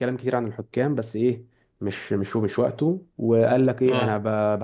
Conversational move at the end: listening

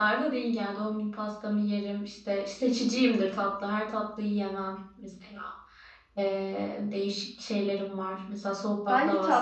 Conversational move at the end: taking over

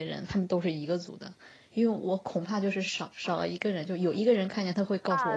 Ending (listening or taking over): taking over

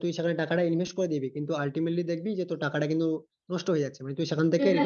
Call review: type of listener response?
taking over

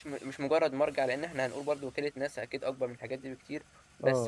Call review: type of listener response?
listening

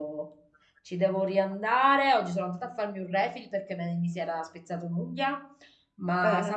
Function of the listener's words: listening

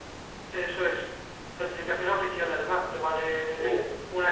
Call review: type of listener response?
listening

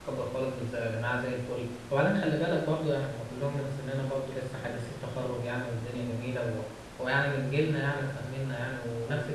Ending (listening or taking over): listening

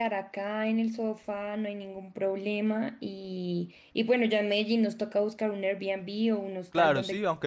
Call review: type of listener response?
taking over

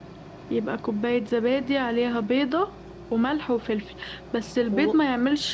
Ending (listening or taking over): listening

